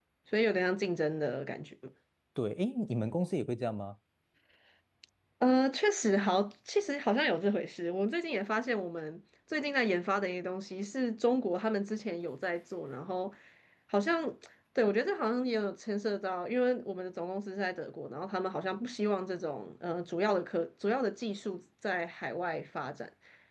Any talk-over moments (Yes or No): No